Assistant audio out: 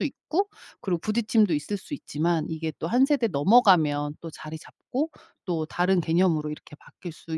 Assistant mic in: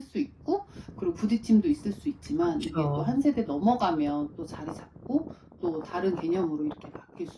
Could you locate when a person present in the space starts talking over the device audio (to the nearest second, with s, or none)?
2 s